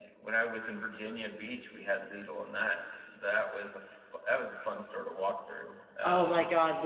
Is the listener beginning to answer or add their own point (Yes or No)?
Yes